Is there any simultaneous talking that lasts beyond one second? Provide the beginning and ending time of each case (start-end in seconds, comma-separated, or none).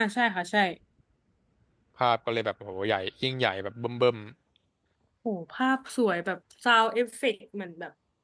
none